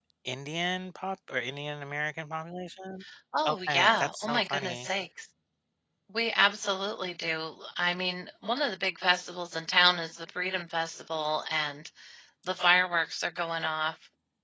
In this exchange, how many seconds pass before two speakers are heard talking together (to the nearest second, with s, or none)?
3 s